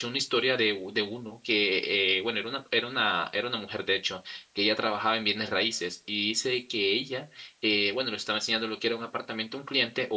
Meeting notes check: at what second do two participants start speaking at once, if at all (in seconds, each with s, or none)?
none